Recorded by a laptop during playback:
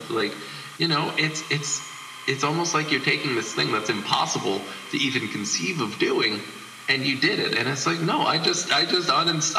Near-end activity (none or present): none